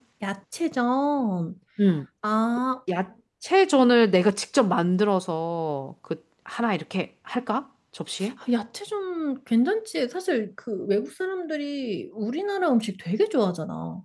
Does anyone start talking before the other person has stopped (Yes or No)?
No